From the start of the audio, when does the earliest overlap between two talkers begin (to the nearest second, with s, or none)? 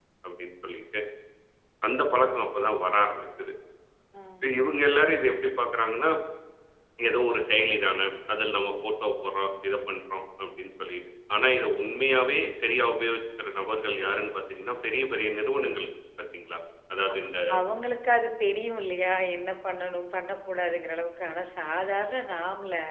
none